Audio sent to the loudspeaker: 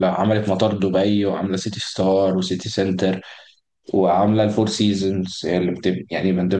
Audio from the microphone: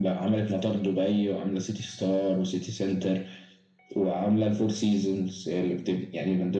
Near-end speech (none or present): none